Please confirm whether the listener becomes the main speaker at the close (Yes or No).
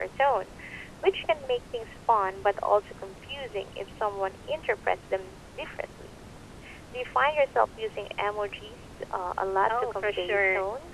Yes